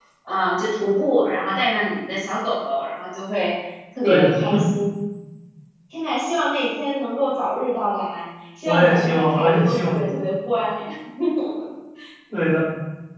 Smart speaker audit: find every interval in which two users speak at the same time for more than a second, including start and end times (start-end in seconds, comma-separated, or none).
8.7-9.9